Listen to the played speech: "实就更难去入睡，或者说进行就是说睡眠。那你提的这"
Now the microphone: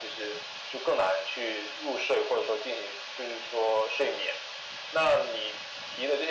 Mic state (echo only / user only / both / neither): echo only